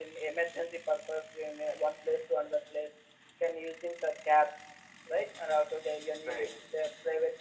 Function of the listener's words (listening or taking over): listening